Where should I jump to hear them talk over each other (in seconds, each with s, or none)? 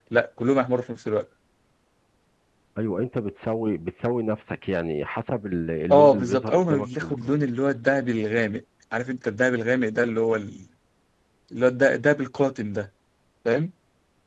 5.9 s